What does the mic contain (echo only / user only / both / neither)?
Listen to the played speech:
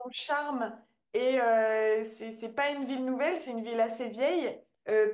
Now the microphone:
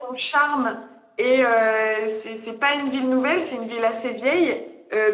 echo only